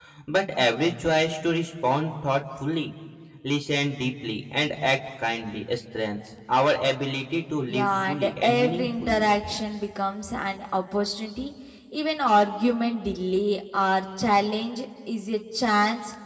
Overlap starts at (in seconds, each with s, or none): 7.7 s